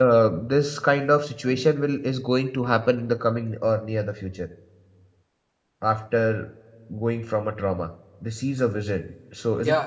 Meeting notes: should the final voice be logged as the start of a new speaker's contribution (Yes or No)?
Yes